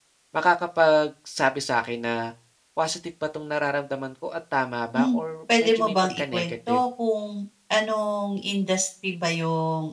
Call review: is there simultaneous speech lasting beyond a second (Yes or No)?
Yes